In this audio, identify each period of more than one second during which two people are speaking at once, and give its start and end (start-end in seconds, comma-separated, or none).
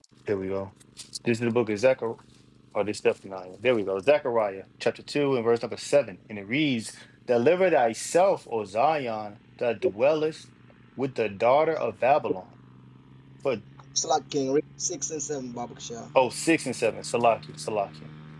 none